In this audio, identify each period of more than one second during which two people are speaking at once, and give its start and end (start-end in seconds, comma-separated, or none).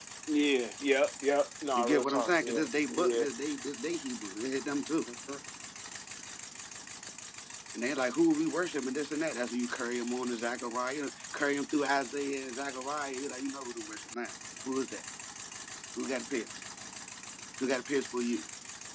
1.7-3.2